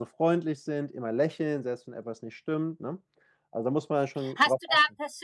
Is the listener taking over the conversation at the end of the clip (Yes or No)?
Yes